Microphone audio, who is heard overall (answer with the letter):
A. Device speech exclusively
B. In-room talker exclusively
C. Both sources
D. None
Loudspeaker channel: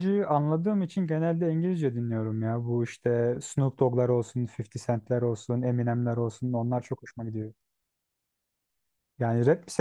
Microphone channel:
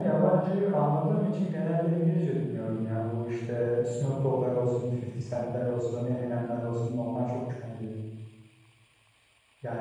A